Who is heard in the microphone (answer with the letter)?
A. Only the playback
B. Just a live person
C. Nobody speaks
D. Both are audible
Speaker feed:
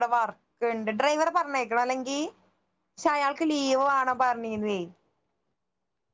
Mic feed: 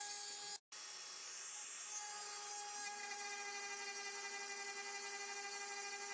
C